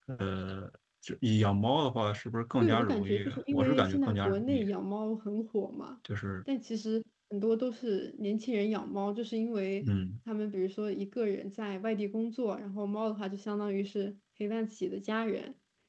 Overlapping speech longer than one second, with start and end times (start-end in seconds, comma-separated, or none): 2.6-4.7